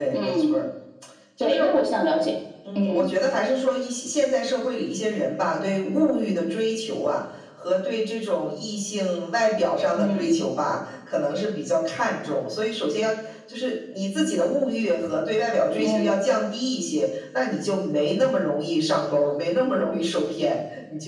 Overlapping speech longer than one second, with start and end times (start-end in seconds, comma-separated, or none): none